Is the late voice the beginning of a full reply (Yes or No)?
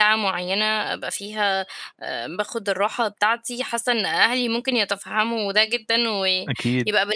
No